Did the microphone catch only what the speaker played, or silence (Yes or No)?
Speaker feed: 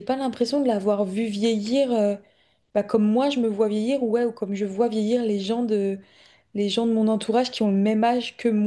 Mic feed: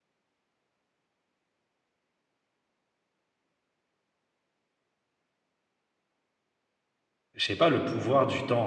No